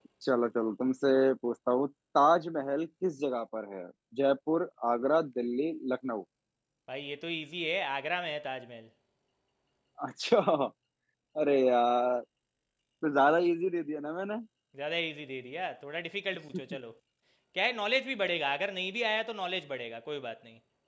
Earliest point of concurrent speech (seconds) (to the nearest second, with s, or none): none